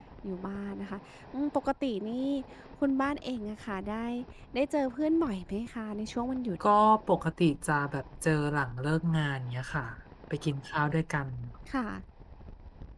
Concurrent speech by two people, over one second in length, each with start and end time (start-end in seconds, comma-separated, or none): none